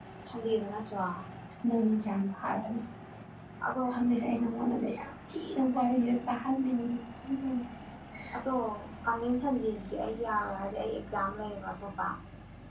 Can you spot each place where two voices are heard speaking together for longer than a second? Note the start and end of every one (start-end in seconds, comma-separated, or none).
none